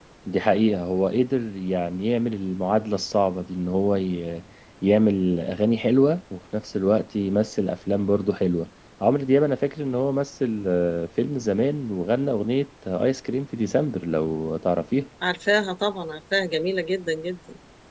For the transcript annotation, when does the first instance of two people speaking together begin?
none

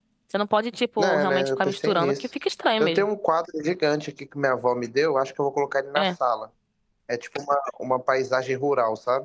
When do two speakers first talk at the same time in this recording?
1.0 s

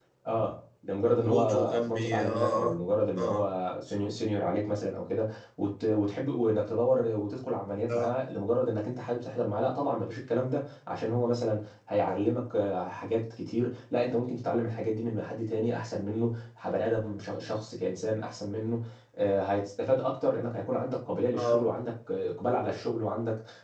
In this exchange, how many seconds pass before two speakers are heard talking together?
1.1 s

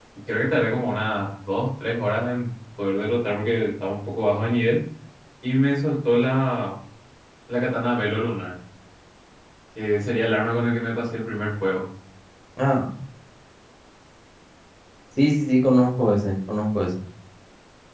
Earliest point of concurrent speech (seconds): none

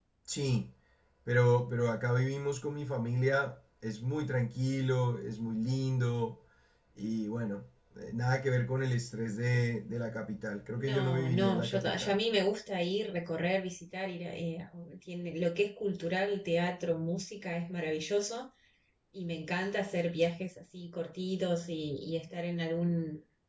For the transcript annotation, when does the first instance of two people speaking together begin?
10.8 s

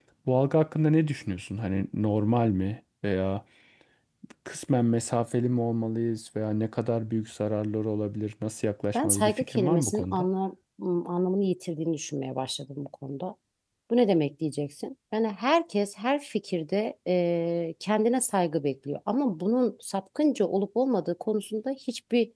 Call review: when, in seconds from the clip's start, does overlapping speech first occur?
8.9 s

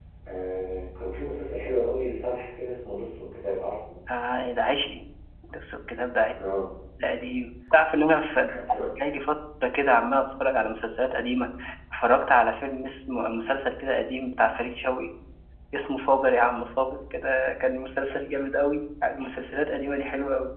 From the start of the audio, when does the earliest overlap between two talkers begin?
none

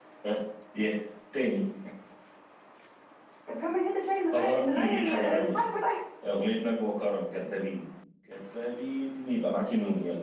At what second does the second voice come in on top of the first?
4.3 s

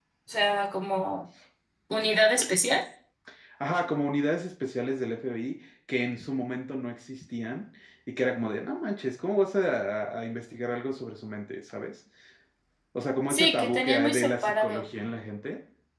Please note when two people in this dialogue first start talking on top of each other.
13.3 s

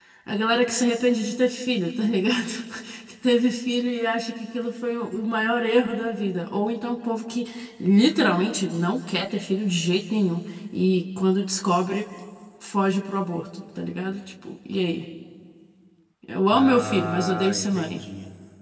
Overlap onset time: 16.5 s

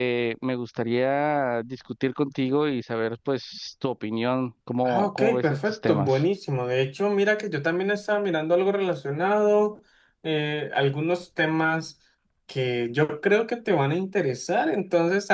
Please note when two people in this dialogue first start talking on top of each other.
4.8 s

